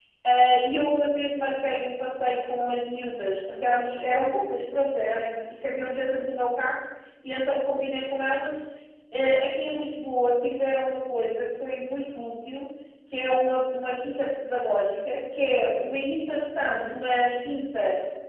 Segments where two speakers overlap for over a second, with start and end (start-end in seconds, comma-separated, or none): none